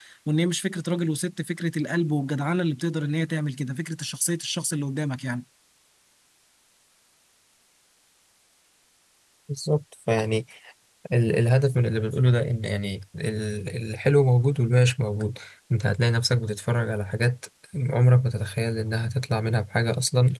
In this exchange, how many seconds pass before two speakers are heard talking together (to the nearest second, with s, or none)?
none